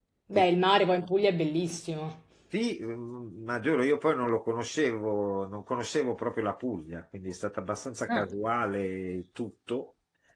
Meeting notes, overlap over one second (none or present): none